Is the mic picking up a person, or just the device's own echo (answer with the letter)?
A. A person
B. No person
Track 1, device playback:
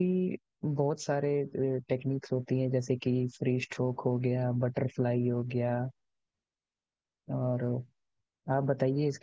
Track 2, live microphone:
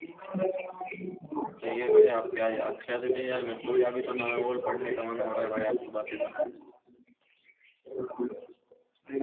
A